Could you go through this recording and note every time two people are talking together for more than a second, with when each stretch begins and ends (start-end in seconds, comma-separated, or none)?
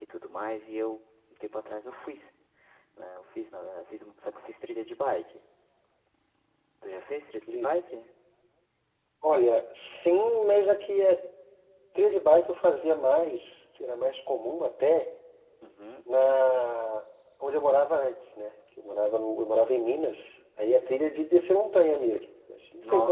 none